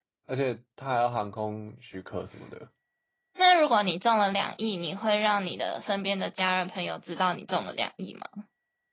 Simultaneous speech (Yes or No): No